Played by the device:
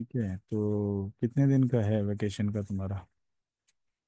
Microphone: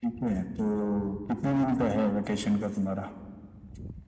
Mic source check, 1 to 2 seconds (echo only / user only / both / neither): echo only